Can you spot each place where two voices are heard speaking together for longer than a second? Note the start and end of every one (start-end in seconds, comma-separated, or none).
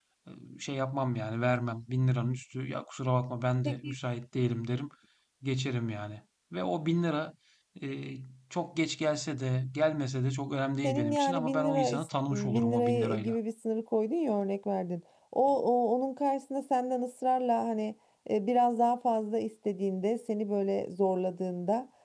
10.8-13.3